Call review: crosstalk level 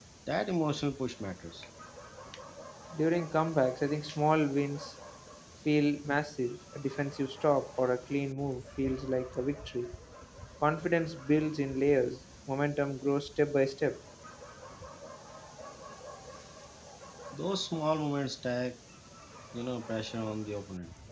none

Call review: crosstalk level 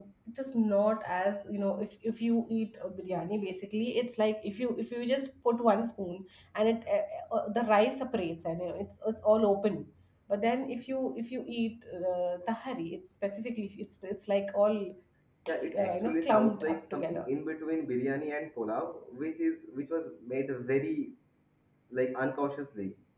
present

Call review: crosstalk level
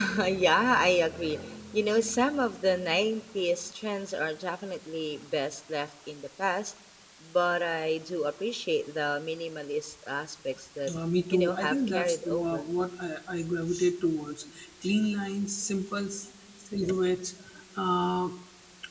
present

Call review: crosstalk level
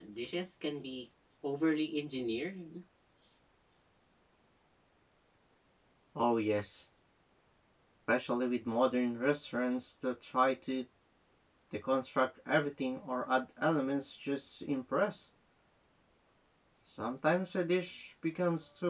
none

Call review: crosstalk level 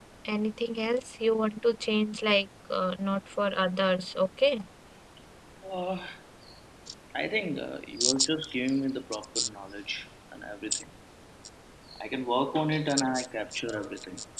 none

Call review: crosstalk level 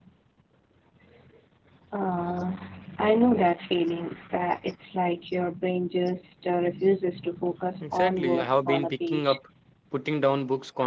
present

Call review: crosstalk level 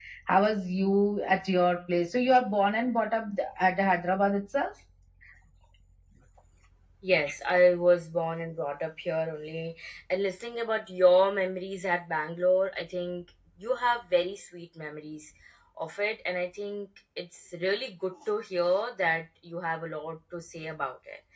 none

